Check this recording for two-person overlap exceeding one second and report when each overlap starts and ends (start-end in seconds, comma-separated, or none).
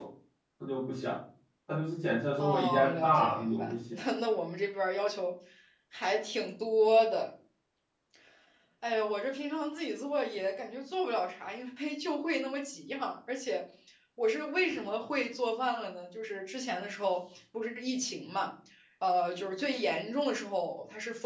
2.4-4.0